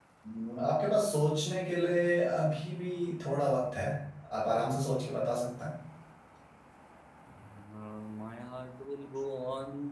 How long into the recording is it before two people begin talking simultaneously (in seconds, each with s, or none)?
none